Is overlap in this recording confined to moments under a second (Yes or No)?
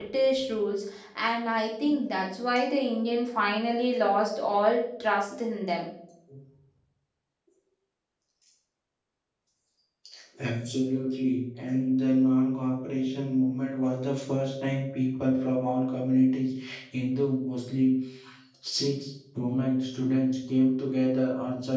Yes